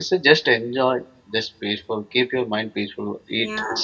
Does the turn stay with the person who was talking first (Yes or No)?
No